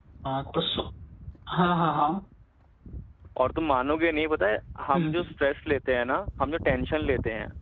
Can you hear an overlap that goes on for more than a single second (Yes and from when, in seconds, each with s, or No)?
No